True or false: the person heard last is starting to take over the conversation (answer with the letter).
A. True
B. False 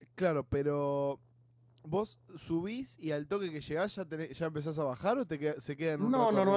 A